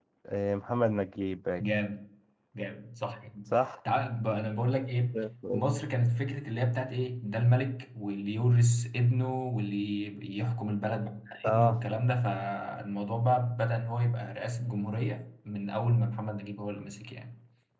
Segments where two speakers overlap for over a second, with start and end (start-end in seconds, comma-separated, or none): none